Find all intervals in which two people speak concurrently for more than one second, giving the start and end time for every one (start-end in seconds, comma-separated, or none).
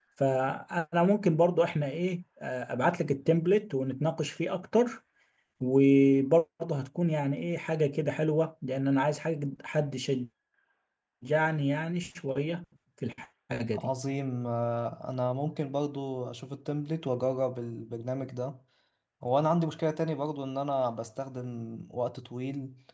none